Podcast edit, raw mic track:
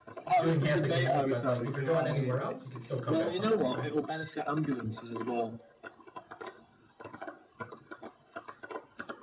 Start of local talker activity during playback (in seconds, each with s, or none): 0.4 s